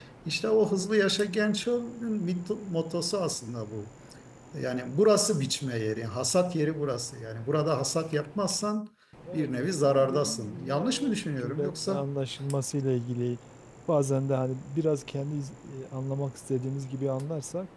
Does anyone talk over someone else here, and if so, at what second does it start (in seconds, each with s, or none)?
9.3 s